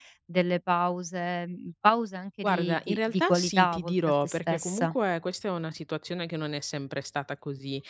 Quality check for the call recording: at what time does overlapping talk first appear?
2.4 s

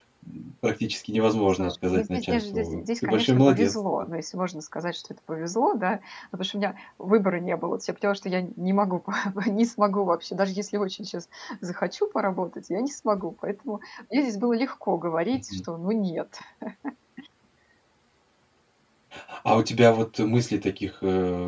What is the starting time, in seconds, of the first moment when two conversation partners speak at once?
1.5 s

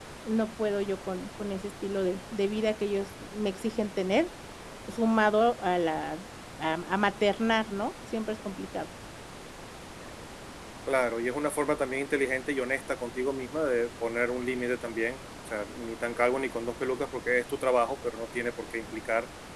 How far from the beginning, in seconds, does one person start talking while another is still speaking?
none

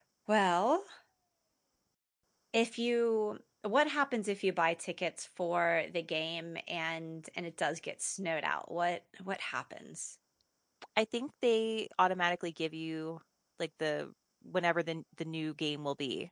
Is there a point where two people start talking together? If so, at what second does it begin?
none

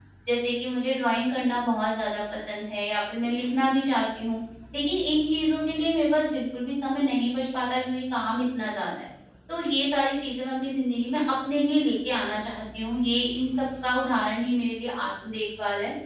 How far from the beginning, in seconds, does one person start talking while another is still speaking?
none

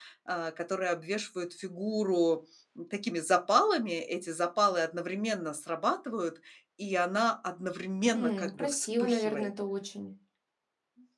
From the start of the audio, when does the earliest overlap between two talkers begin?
8.1 s

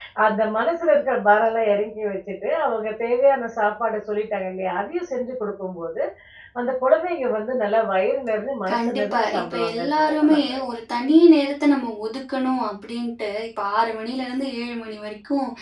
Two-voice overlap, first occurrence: 8.7 s

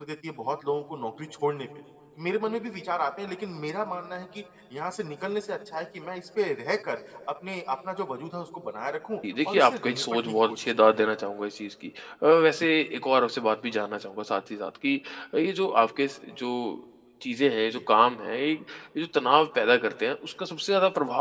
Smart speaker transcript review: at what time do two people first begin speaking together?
9.2 s

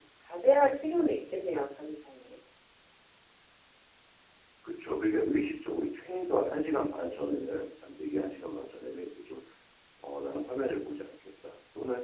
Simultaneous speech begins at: none

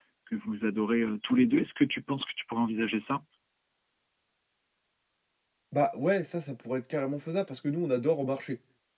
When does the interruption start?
none

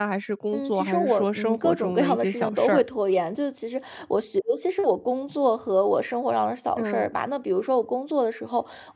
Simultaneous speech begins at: 0.5 s

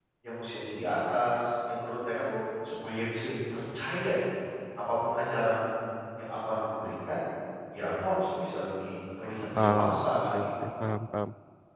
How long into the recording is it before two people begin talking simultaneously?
9.5 s

